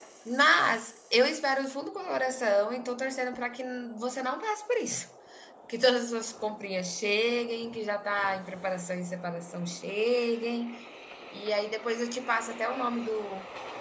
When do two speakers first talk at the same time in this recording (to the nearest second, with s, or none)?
none